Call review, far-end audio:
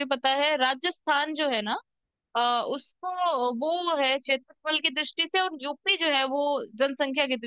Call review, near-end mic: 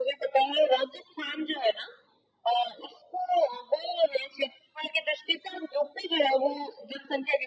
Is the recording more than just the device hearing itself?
No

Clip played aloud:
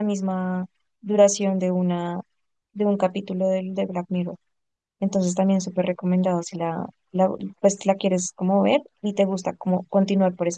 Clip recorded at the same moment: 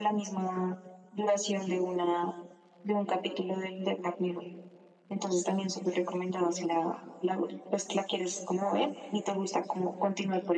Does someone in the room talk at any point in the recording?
No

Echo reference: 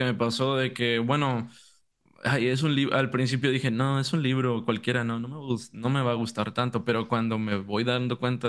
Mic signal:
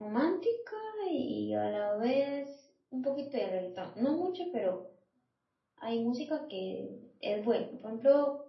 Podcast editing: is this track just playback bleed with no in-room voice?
No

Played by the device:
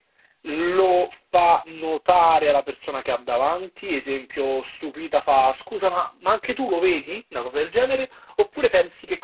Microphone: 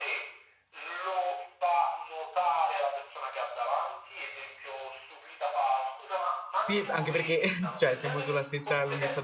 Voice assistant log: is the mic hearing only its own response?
No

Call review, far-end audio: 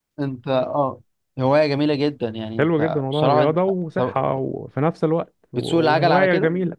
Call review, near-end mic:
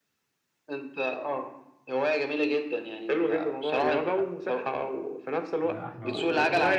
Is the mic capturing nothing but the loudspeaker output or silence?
No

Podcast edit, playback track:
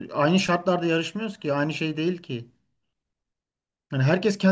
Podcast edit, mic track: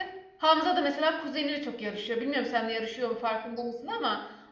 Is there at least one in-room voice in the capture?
Yes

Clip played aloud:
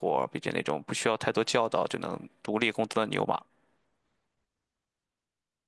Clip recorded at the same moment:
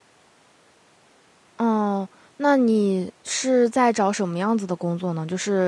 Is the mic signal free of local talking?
No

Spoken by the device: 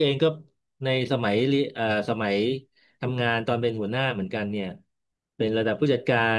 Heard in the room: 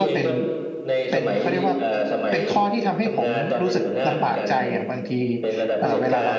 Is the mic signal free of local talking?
No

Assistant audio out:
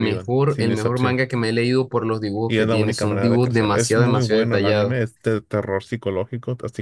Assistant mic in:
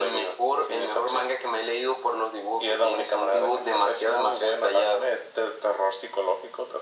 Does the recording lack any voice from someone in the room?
Yes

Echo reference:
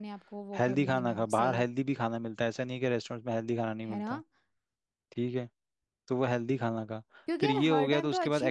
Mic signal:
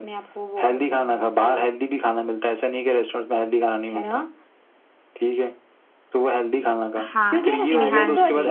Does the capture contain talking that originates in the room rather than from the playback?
Yes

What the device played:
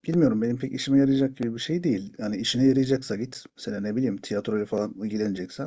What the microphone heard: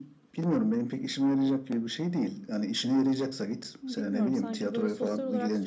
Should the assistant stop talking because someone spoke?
Yes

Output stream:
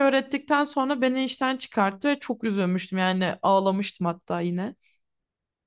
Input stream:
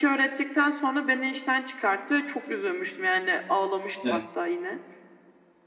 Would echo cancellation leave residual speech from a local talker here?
Yes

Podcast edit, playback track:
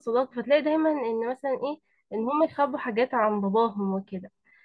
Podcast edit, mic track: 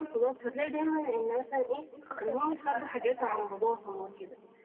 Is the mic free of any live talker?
No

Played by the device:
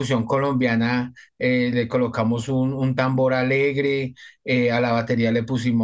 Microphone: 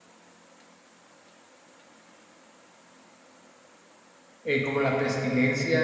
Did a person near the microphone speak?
Yes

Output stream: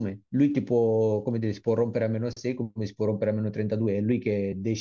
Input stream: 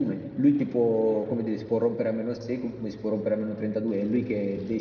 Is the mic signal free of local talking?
Yes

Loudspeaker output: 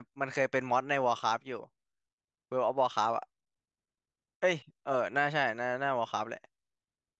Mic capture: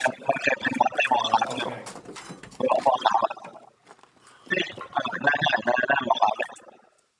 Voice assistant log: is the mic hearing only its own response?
No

